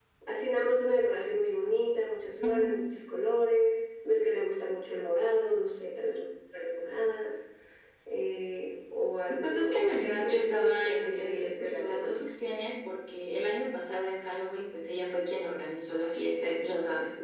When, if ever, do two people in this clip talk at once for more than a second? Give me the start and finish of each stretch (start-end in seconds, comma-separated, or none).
9.4-12.2